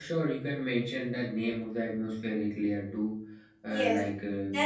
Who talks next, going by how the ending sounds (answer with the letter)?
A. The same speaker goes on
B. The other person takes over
B